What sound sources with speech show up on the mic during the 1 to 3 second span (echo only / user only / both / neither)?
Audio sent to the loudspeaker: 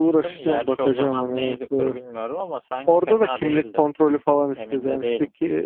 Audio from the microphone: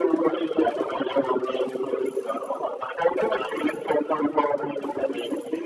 echo only